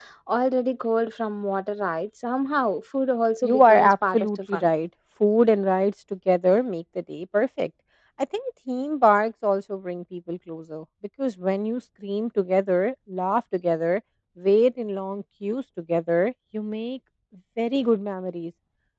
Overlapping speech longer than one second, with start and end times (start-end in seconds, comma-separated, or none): 3.4-4.7